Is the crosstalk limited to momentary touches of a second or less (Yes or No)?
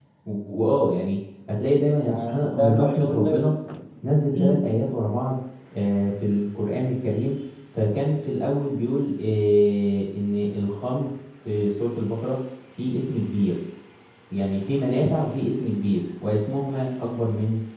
No